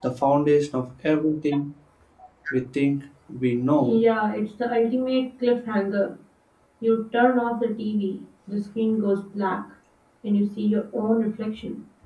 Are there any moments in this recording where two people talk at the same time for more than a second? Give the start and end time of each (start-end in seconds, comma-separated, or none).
none